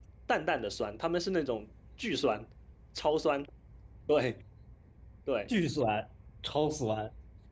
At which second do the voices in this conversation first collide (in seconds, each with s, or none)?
none